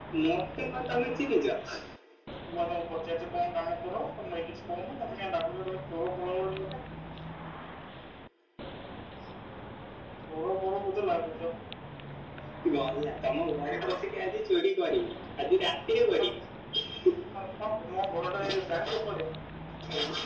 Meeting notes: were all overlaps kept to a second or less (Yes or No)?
Yes